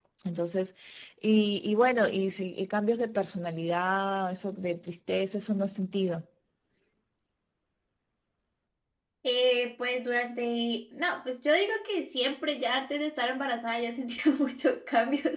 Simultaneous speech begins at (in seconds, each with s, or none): none